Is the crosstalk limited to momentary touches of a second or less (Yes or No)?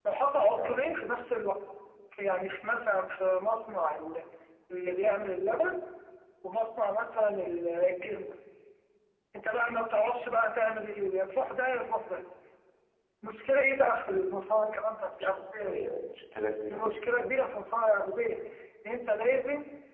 Yes